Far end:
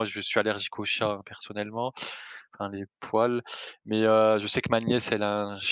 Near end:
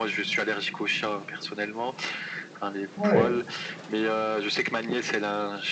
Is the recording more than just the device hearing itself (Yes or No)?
Yes